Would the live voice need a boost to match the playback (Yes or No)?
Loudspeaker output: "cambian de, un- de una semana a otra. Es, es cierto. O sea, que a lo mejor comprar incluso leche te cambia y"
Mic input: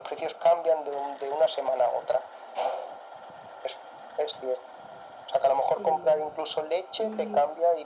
Yes